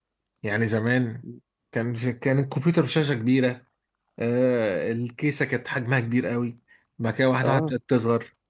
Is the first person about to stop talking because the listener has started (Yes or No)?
No